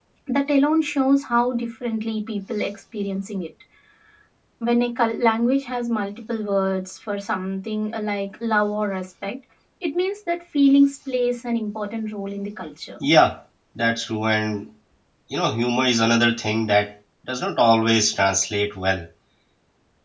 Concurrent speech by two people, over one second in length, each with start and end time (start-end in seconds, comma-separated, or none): none